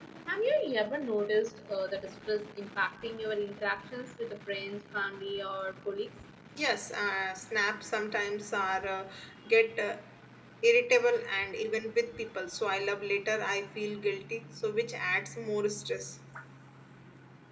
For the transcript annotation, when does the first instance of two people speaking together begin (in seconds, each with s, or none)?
none